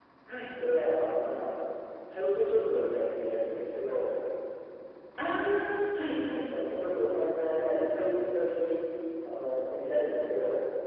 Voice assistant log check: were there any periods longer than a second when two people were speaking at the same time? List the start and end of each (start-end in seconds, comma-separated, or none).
none